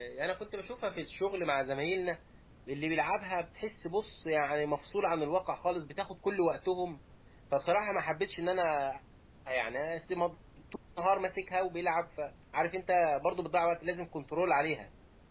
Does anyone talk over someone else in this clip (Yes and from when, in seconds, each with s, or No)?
No